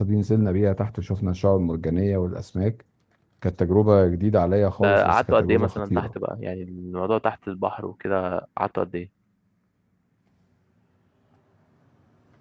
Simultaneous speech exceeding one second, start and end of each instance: 4.8-6.1

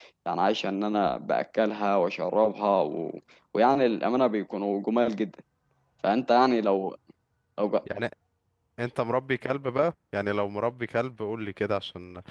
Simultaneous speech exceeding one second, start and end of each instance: none

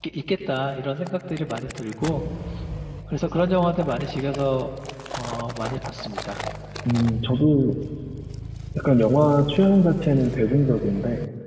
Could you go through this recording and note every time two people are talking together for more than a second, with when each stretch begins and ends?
none

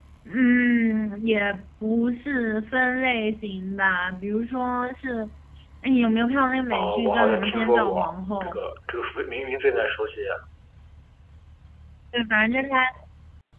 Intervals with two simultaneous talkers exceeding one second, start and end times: 6.7-8.0

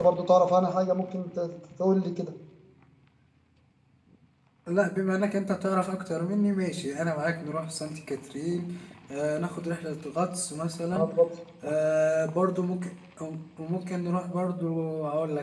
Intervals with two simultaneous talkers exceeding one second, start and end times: none

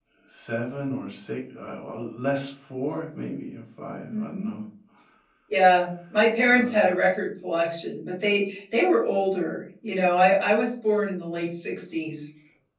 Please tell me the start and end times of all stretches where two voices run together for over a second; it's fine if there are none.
none

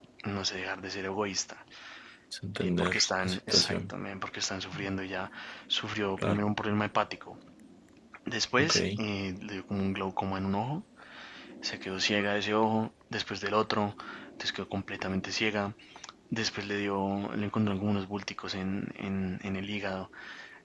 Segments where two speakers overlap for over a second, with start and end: 2.6-3.9

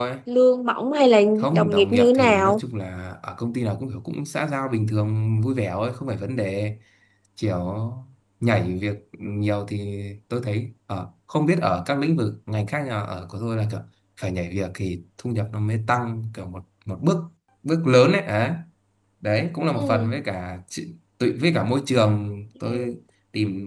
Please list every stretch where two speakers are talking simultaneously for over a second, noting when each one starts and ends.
1.4-2.6

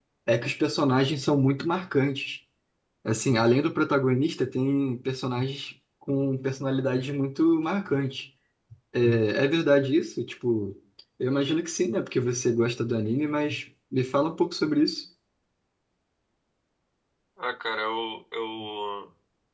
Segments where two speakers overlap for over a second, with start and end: none

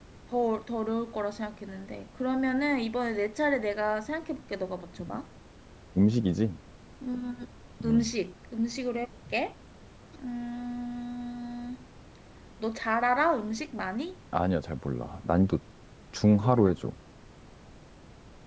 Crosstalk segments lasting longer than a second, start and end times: none

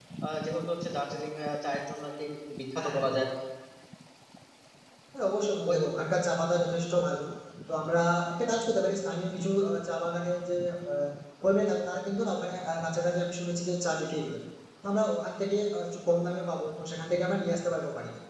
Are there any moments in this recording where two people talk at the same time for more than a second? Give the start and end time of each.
none

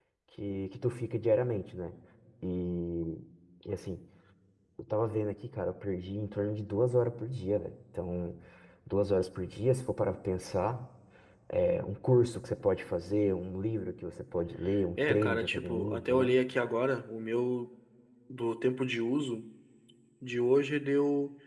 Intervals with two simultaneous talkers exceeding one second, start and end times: 15.0-16.3

